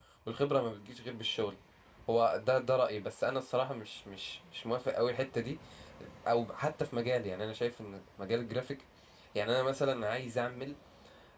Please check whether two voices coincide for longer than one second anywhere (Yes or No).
No